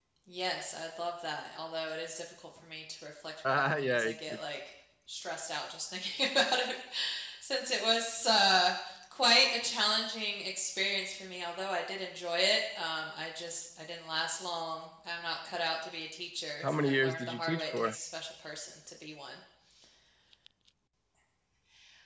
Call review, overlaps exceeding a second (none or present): present